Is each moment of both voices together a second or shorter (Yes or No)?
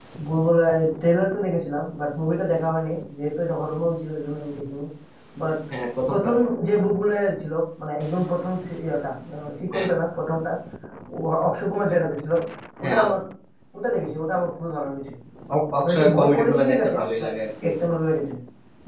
No